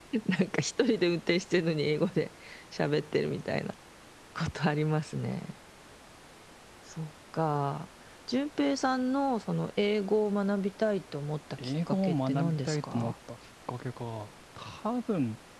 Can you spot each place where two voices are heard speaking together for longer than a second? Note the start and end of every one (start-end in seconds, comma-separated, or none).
11.9-13.1